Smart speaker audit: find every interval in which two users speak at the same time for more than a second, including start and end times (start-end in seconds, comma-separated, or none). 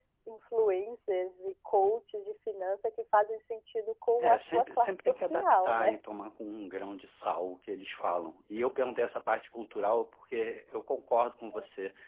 4.2-6.0